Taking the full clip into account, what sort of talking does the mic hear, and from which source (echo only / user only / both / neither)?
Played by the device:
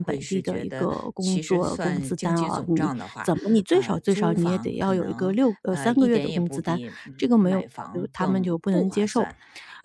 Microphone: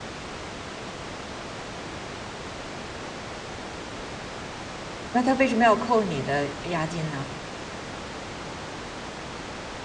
user only